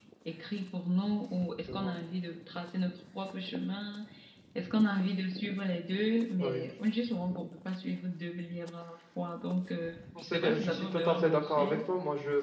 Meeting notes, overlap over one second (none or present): present